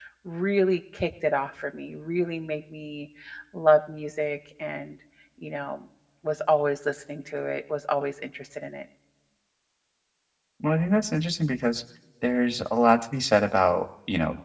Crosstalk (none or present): none